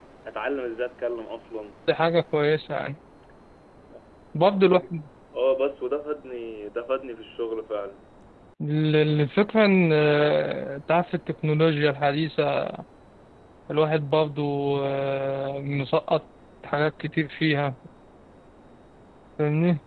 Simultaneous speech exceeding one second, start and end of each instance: none

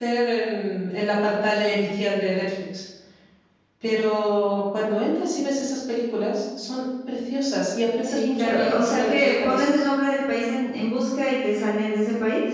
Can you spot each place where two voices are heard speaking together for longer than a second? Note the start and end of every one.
8.0-9.8

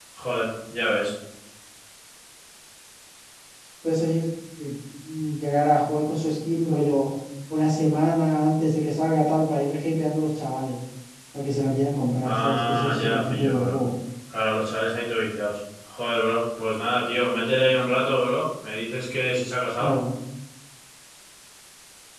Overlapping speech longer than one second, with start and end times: 12.2-13.8

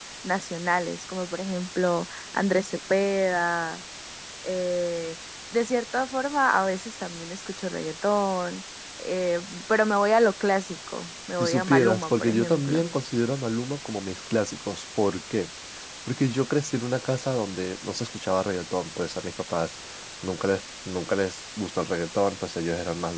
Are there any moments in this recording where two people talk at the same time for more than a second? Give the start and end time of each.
11.4-12.8

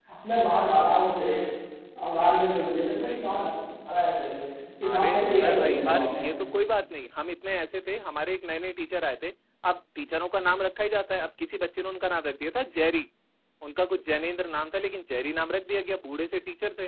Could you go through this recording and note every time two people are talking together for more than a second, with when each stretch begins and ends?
4.8-6.2

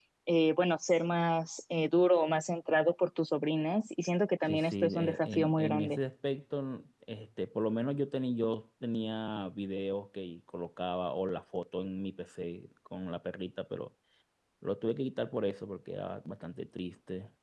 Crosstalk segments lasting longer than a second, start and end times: 4.5-6.0

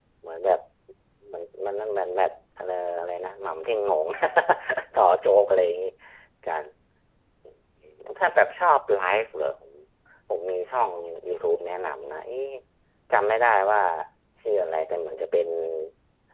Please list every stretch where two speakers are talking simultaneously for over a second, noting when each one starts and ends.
none

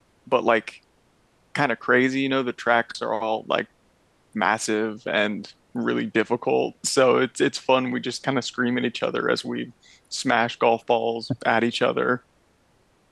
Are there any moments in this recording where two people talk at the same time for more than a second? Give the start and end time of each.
none

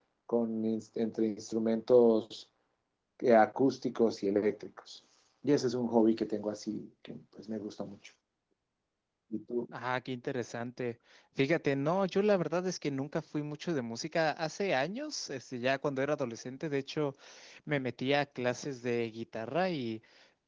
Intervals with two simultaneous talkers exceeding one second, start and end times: none

